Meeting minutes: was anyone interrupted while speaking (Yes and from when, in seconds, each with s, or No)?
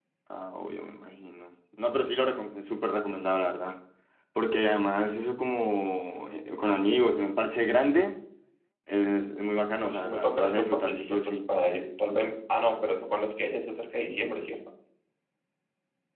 Yes, from 9.8 s